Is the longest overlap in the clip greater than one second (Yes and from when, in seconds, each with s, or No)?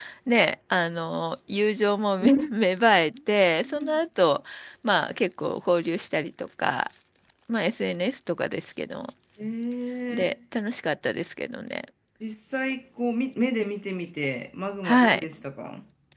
No